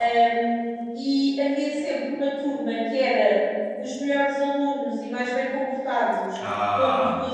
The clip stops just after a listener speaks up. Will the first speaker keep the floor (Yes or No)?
Yes